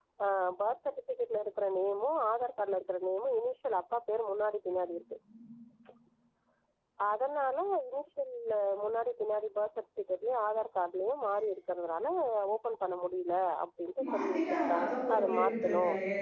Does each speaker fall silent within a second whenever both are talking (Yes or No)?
No